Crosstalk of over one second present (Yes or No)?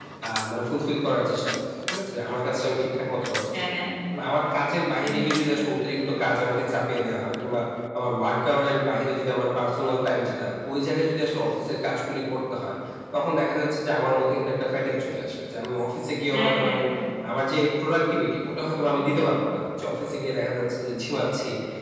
No